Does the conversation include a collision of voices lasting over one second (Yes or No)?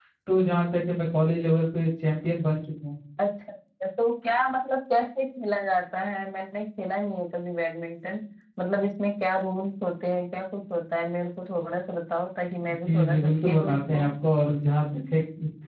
Yes